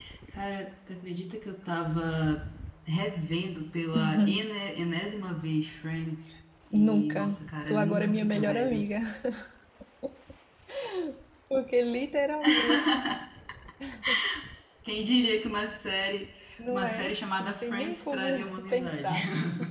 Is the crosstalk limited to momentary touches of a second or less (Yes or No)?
No